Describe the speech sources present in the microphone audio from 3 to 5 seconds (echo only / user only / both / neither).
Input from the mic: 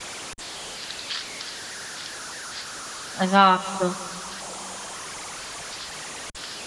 user only